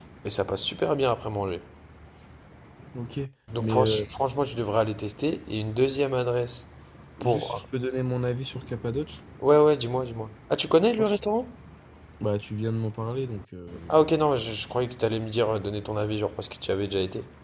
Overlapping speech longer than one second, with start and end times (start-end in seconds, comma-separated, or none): none